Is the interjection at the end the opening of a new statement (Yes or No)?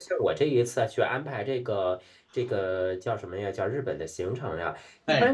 No